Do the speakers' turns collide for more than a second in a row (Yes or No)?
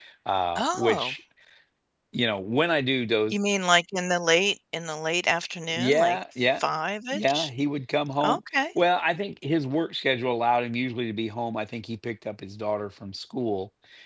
No